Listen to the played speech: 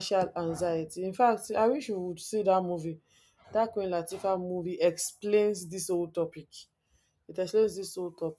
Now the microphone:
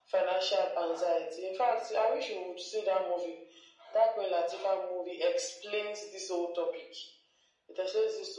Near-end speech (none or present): none